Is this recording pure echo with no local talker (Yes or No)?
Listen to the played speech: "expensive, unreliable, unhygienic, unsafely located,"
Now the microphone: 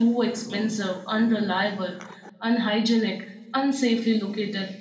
Yes